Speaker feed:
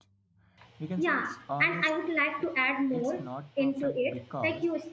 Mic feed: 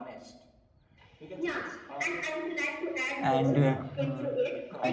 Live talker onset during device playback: 3 s

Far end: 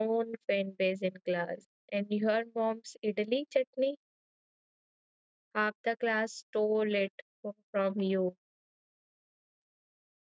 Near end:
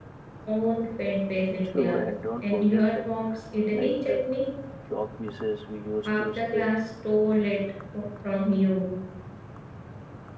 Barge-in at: 2 s

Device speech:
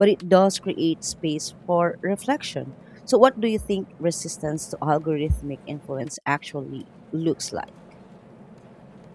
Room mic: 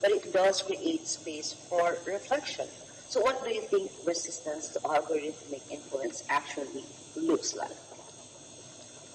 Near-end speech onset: none

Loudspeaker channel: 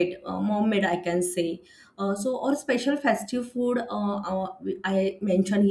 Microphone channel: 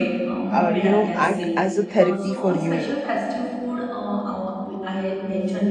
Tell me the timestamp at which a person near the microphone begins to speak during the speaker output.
1 s

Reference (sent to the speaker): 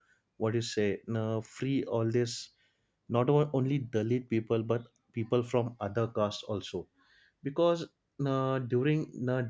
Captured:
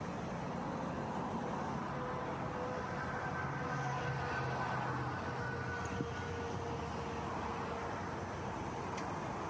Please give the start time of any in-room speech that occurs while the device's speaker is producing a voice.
none

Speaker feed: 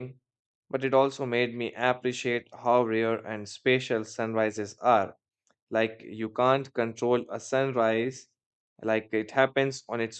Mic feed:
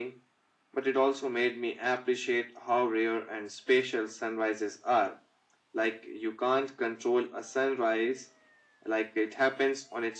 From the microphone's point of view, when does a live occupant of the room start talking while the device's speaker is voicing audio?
none

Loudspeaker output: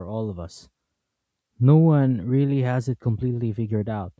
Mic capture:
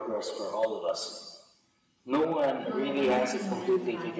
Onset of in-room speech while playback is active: 3 s

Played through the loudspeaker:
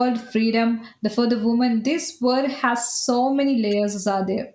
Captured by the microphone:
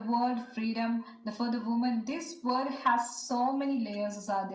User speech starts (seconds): none

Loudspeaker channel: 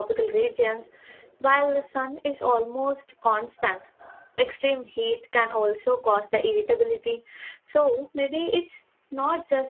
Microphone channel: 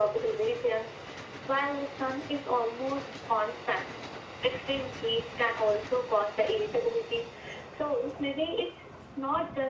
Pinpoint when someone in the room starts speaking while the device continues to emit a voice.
none

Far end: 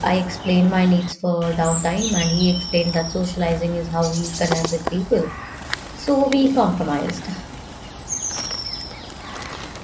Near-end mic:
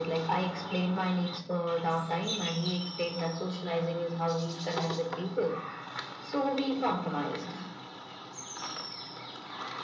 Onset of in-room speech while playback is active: none

